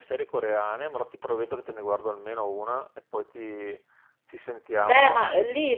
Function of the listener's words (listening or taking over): taking over